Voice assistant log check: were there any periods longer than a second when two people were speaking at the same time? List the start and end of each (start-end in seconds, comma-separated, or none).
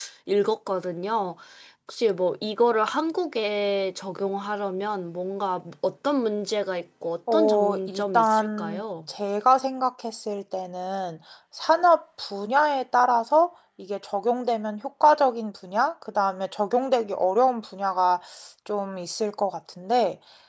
7.3-8.8